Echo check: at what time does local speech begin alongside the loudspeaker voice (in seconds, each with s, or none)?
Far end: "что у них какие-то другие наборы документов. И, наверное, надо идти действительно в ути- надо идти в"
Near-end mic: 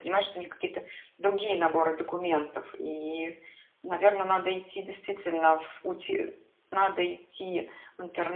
none